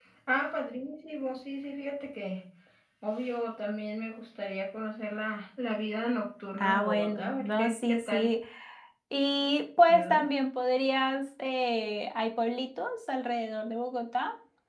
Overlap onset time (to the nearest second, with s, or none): 7 s